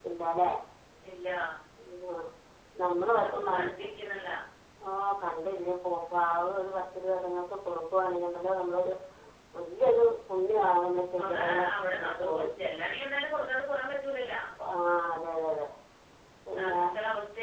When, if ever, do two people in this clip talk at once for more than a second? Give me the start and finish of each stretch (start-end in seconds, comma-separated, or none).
11.2-12.5